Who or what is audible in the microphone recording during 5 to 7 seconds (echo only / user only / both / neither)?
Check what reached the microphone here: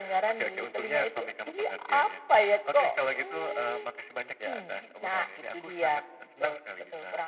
echo only